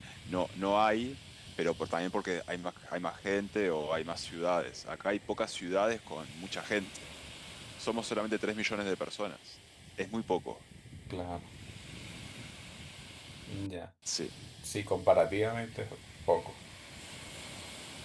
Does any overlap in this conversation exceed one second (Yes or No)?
No